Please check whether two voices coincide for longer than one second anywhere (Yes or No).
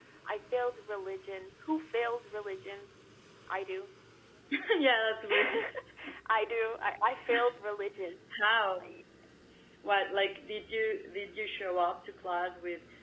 No